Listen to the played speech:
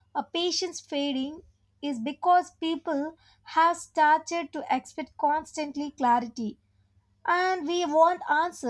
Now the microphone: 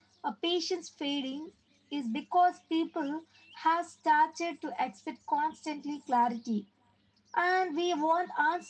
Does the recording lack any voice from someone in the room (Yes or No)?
Yes